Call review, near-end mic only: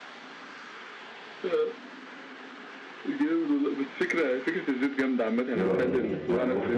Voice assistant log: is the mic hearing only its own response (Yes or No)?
No